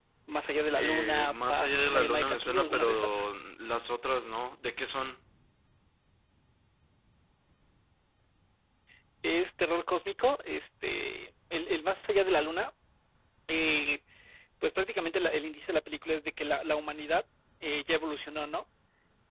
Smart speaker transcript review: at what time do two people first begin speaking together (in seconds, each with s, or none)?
0.8 s